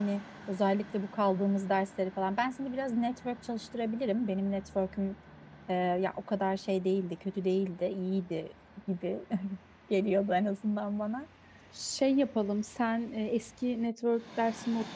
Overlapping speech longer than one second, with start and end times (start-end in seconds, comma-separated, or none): none